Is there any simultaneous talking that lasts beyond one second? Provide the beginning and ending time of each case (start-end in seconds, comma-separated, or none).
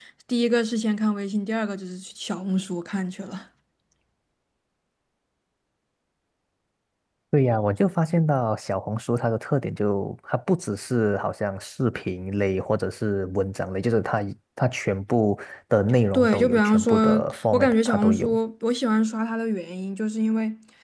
16.1-18.3